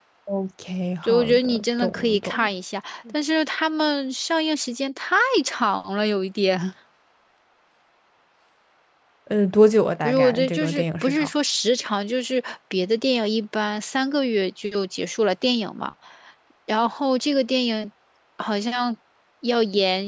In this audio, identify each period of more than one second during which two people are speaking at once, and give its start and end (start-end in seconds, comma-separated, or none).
1.0-2.5, 10.0-11.3